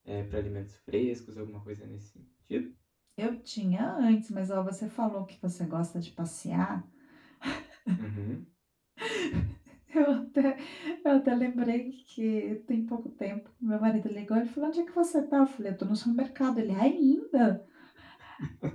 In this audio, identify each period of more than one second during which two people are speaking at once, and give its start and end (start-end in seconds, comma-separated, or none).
none